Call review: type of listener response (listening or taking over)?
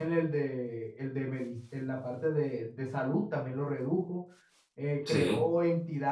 listening